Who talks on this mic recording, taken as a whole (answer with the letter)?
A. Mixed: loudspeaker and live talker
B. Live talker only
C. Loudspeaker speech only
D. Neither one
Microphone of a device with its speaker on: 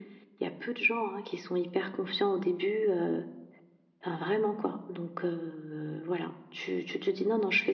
C